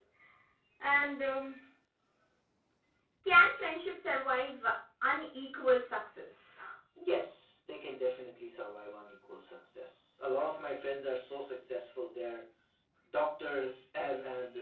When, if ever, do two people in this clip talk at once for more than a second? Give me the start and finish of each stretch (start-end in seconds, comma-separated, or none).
none